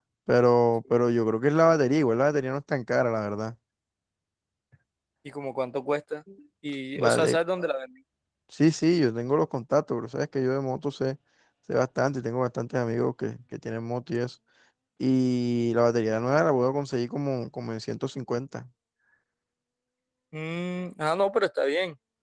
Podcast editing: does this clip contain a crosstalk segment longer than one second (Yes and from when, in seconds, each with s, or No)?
No